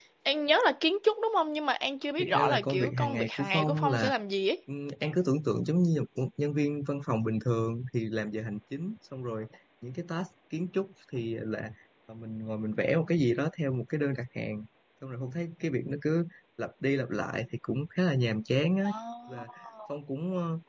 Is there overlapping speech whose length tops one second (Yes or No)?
Yes